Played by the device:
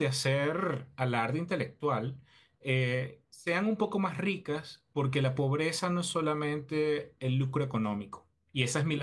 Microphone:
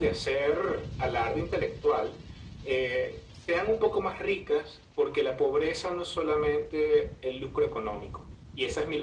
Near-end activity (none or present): none